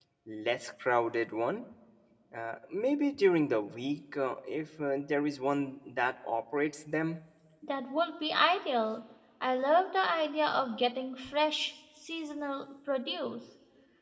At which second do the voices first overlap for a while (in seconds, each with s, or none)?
none